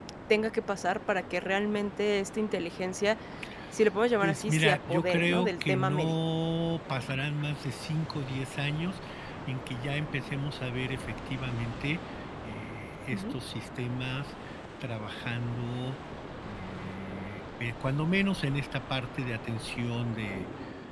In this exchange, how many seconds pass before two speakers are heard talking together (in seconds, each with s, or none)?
4.2 s